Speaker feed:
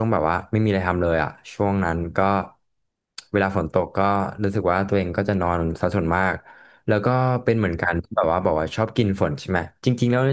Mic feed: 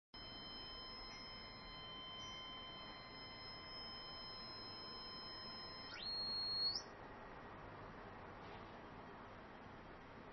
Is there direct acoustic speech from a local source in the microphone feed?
No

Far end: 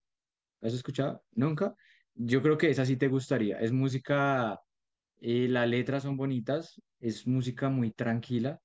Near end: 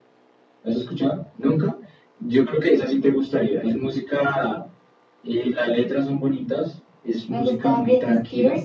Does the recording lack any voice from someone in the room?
No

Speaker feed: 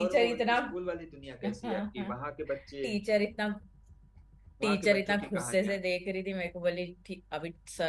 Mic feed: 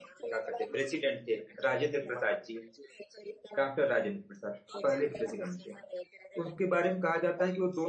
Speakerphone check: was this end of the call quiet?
No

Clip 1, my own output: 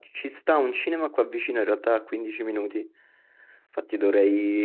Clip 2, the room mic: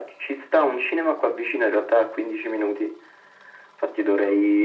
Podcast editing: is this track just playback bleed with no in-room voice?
Yes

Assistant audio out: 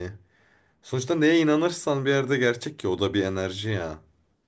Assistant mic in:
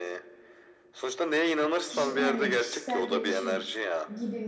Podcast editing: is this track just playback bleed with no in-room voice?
No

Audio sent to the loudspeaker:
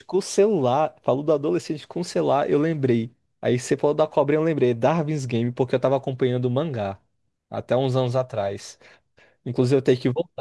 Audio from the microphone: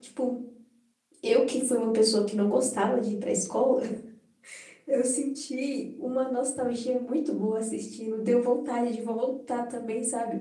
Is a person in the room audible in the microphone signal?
Yes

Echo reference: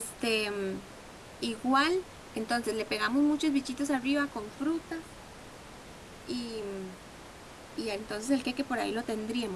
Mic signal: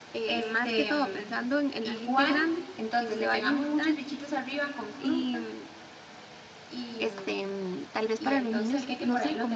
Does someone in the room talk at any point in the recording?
Yes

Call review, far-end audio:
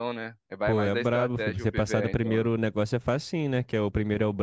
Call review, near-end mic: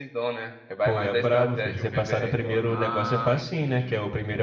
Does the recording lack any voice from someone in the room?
No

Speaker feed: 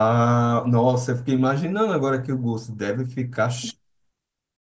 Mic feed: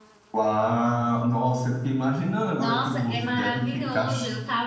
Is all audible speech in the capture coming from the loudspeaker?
No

